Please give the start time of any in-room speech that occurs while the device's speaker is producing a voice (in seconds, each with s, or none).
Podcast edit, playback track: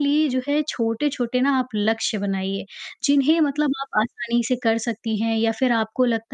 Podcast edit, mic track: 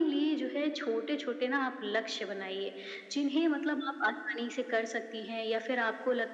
none